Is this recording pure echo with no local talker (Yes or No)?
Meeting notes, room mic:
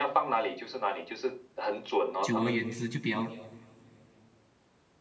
No